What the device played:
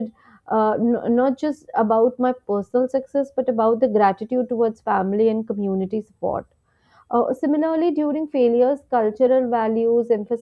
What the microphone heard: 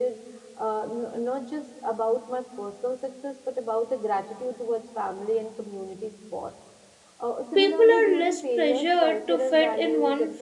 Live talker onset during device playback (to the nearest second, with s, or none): 8 s